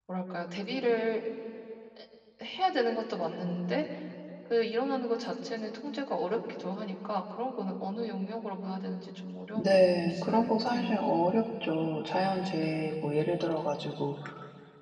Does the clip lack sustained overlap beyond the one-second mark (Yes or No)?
No